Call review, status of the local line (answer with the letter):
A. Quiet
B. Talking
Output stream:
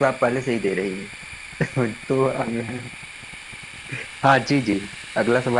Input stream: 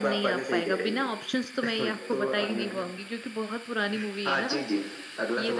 B